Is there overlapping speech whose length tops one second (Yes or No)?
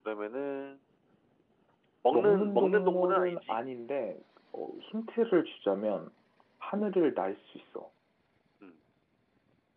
Yes